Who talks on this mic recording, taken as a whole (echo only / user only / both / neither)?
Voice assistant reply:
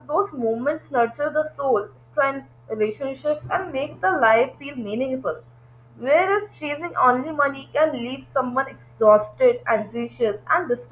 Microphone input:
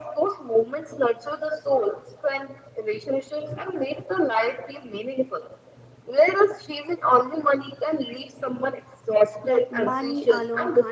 both